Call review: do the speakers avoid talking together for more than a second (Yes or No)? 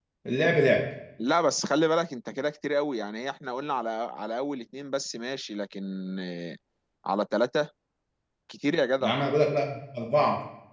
Yes